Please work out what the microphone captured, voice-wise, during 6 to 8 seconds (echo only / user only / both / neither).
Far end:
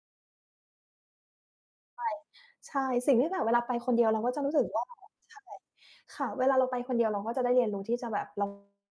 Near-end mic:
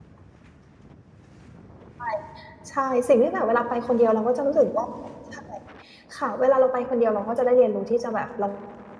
echo only